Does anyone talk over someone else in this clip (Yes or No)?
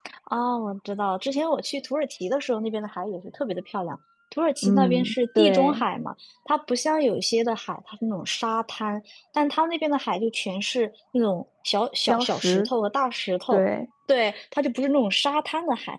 Yes